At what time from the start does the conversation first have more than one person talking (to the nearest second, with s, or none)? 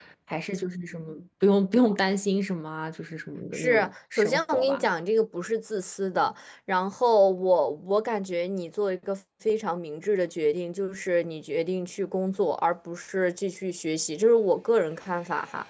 4 s